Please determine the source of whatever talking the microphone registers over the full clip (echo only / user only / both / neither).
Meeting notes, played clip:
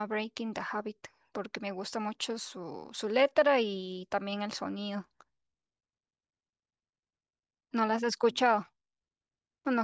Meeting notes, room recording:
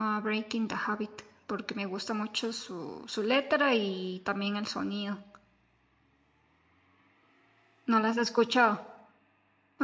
echo only